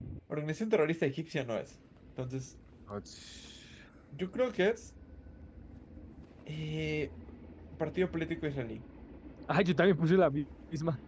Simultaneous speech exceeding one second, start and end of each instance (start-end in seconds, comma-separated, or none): none